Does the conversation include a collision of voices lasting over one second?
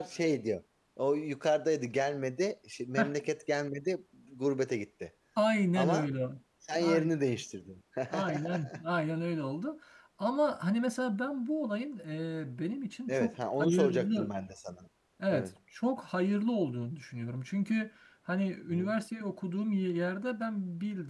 Yes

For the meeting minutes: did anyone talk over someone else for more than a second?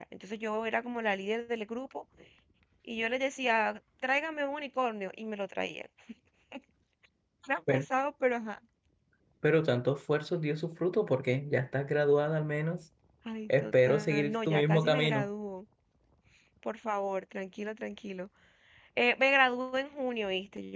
Yes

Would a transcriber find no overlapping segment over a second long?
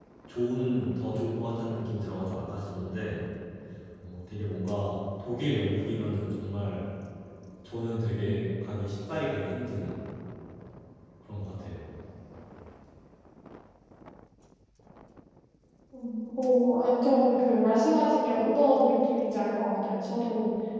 Yes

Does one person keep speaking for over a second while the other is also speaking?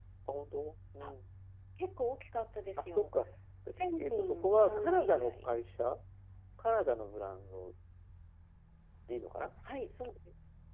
Yes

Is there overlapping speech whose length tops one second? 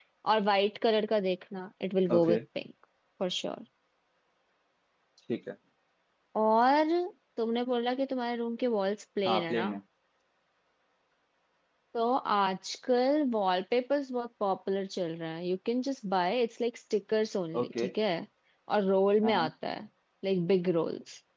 No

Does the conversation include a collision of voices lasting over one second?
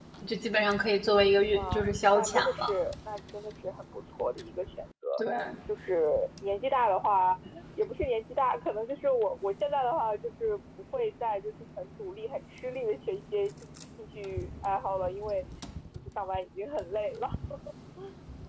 Yes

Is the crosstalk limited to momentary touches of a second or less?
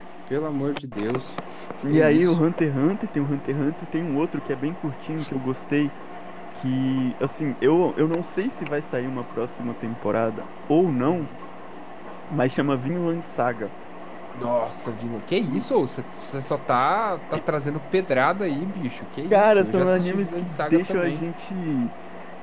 No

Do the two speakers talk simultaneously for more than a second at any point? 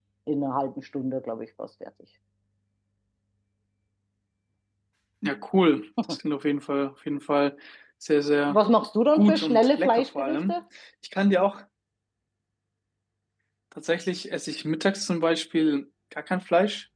Yes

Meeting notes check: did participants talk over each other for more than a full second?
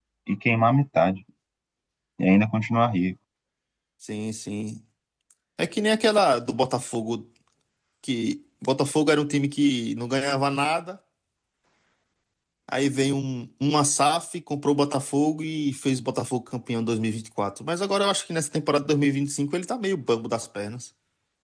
No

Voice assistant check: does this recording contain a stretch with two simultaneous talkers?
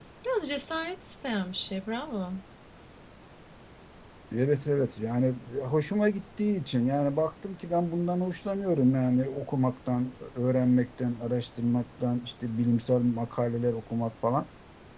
No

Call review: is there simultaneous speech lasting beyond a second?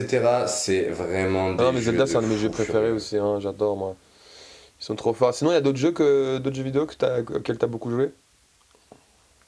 Yes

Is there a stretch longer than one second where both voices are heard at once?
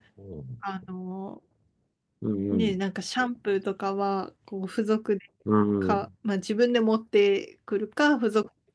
No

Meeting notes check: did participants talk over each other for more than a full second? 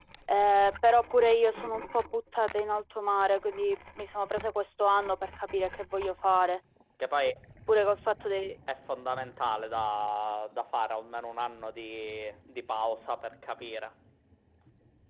No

